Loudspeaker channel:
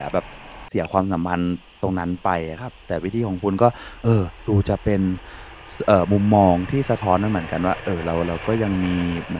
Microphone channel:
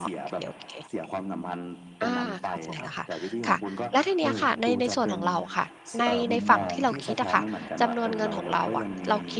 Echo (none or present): present